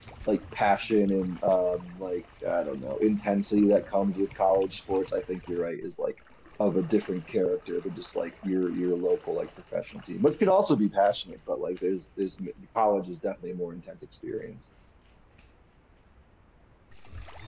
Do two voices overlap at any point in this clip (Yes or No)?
No